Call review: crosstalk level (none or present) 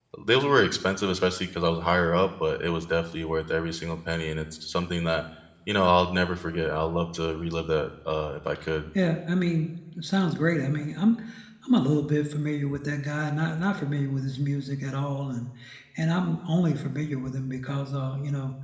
none